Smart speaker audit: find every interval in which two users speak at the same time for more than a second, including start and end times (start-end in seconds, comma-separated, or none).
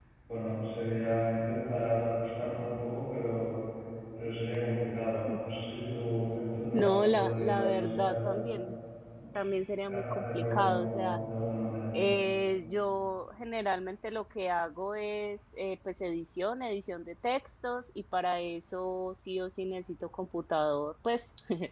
6.7-8.4, 9.8-11.2